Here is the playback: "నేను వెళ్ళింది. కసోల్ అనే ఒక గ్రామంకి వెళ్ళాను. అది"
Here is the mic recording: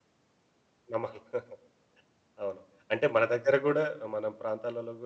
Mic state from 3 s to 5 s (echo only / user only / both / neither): user only